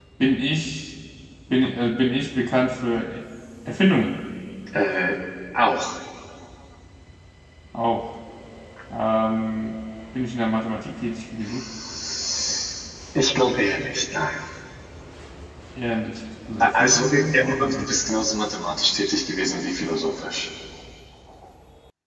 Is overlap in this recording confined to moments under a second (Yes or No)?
No